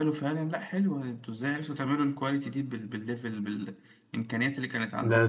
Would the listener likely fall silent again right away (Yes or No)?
No